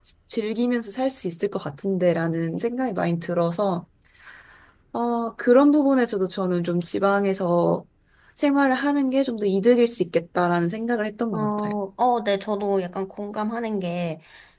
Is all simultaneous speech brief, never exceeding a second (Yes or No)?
Yes